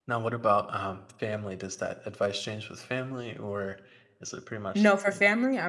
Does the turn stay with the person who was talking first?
No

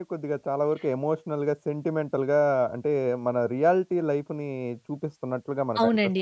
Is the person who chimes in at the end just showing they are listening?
No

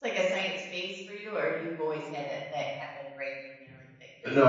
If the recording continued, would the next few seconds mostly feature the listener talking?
Yes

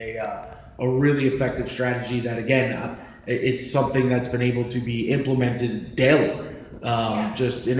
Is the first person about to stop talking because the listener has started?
No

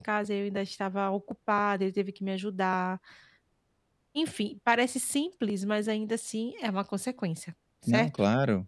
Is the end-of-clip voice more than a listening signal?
Yes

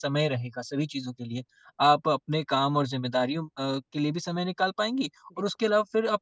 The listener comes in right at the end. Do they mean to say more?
No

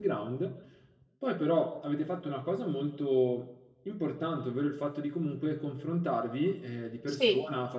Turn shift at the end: No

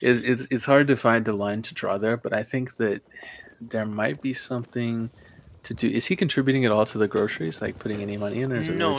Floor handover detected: Yes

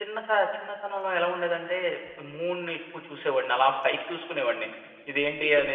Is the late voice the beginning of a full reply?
No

